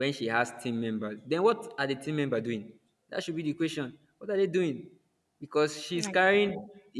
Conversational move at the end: listening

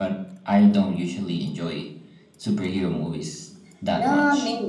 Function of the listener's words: taking over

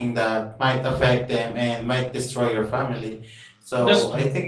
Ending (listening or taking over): listening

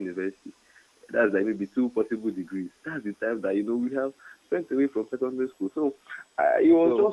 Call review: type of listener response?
listening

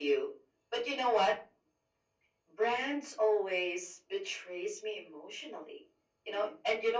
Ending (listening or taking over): listening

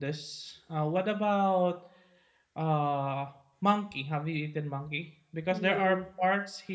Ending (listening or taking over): listening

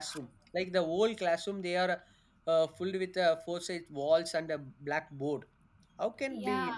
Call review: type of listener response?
listening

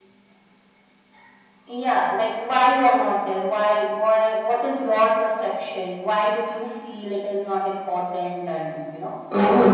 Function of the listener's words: taking over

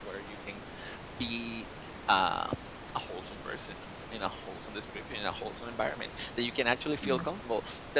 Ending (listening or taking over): listening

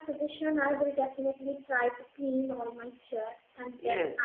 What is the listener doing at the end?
taking over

